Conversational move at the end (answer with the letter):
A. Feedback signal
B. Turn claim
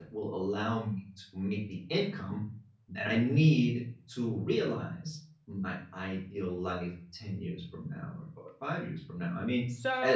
B